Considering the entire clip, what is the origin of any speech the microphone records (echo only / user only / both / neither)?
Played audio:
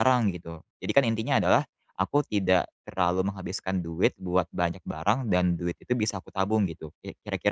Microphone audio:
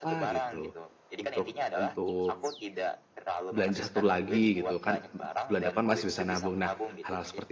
both